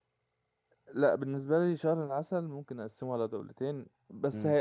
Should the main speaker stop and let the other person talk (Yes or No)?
No